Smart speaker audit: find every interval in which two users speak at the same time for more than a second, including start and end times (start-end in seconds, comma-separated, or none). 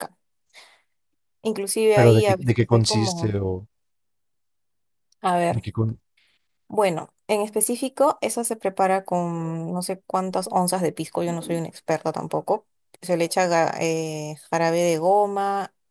2.0-3.3